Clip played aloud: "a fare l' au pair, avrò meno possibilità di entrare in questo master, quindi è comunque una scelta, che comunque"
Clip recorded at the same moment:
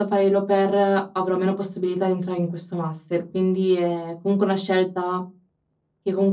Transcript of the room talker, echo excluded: none

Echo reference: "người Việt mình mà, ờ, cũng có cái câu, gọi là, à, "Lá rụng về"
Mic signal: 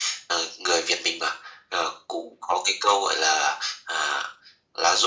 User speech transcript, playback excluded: none

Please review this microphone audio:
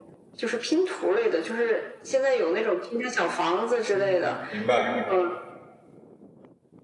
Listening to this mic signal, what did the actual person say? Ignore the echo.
嗯，明白。

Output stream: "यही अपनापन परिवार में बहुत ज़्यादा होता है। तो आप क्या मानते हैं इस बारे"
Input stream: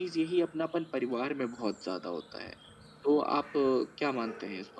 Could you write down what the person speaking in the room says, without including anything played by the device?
none

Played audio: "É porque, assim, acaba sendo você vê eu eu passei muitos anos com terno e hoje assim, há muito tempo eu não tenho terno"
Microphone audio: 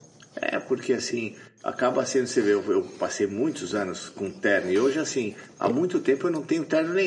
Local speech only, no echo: none

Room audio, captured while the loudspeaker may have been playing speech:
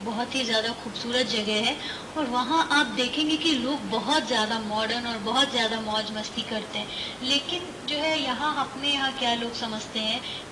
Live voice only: none

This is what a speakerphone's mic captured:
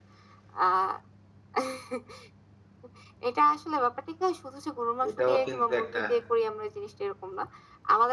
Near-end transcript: এটাও কিন্তু একটা

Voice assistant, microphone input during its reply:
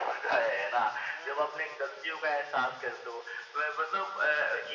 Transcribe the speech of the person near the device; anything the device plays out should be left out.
none

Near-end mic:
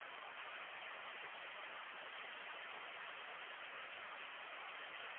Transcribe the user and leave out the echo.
none

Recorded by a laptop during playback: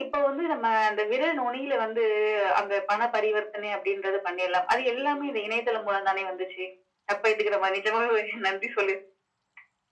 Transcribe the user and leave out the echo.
none

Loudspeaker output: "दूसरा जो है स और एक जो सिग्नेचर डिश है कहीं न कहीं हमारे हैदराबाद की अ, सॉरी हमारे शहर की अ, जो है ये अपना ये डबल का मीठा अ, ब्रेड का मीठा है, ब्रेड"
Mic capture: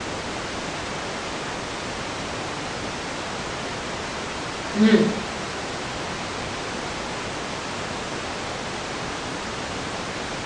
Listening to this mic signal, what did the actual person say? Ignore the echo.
हुँ।

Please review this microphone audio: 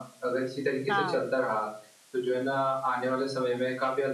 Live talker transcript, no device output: हाँ।

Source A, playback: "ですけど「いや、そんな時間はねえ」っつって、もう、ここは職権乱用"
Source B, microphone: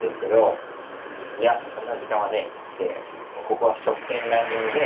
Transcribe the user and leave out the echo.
none

